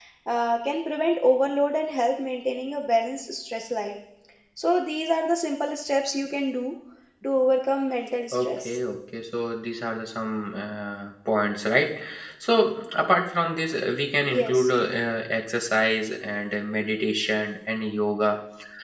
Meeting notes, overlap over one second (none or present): none